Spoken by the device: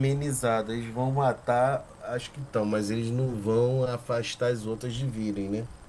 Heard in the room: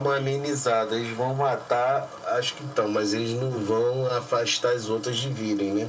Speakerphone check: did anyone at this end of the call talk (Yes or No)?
No